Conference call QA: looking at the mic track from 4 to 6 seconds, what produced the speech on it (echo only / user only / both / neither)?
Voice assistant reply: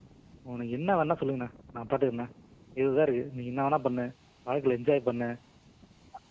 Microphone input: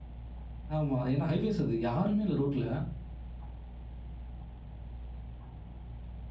neither